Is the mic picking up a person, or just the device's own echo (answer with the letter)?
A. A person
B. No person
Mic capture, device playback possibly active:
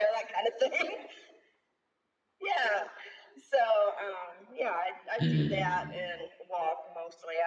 A